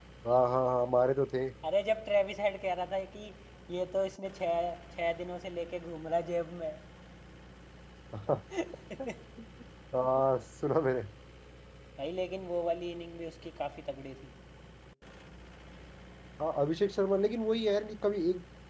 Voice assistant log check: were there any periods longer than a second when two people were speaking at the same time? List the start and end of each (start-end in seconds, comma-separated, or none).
none